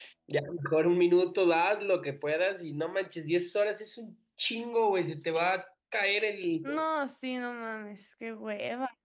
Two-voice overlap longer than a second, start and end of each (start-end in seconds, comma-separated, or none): none